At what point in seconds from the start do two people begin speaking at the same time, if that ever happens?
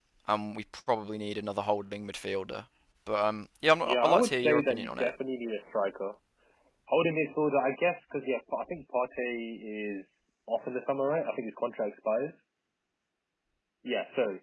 4 s

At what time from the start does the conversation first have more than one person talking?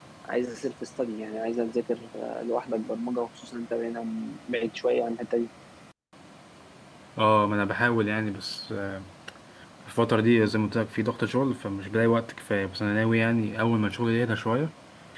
none

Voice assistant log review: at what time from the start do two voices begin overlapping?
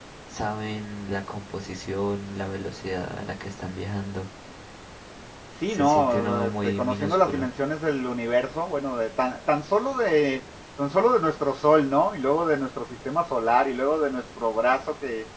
6 s

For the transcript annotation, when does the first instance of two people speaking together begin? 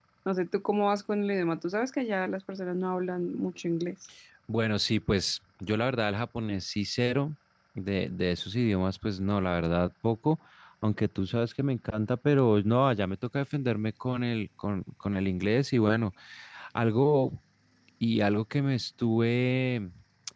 none

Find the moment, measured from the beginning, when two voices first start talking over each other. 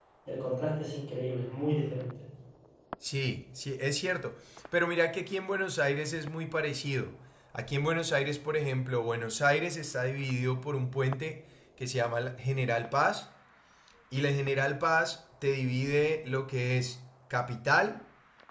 none

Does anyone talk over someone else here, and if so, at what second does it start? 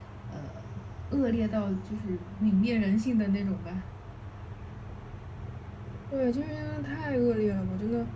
none

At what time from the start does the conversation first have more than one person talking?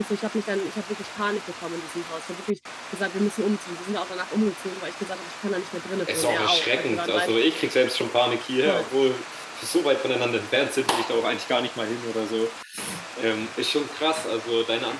6 s

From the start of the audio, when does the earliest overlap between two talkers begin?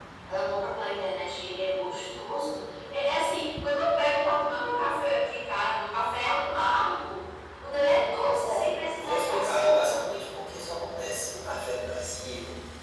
8 s

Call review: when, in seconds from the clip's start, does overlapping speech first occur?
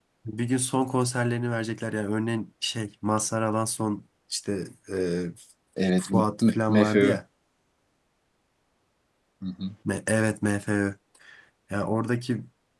6 s

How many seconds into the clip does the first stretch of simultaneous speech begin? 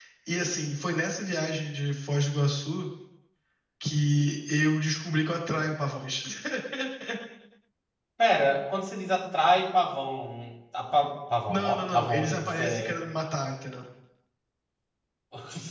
11 s

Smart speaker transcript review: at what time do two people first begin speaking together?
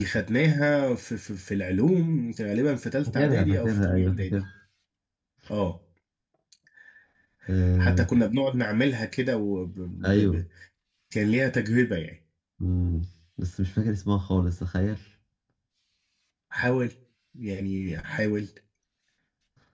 3 s

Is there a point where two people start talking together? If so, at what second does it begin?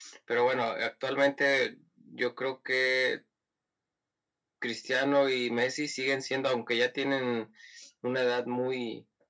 none

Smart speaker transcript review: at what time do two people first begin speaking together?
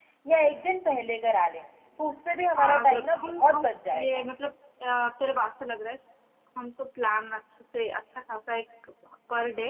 3 s

